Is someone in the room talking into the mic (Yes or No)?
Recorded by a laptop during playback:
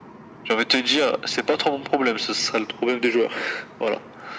No